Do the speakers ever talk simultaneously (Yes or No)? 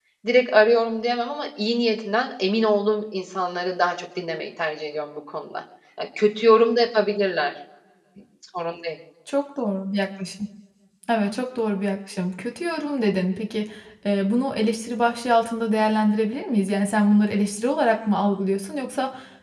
No